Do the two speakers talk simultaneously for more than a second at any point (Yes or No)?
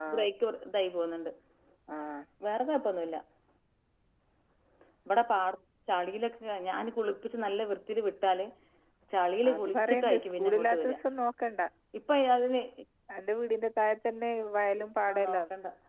Yes